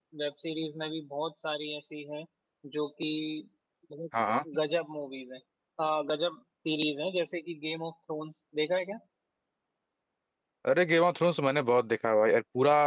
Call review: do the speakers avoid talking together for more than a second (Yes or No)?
Yes